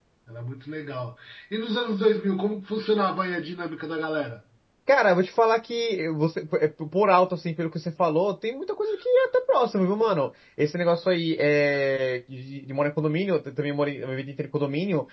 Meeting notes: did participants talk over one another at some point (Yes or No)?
No